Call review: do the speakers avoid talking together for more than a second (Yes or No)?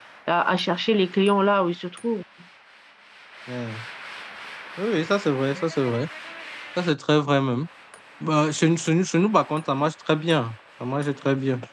Yes